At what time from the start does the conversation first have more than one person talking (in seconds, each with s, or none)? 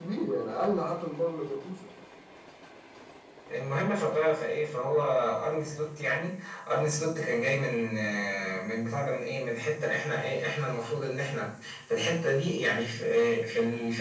none